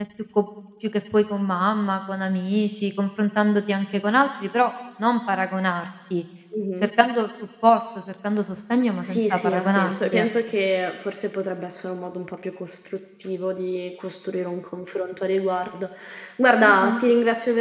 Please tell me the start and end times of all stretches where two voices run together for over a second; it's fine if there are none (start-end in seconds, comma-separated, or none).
9.0-10.3